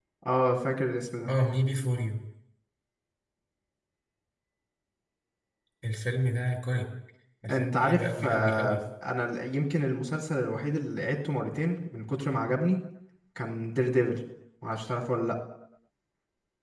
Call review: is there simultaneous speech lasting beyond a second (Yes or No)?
Yes